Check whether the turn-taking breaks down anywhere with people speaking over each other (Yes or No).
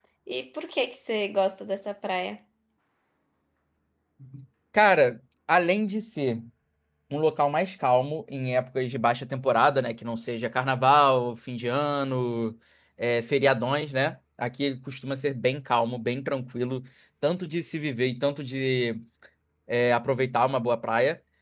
No